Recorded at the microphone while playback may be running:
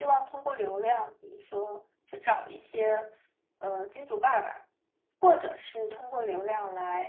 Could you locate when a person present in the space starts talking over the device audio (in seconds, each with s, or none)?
none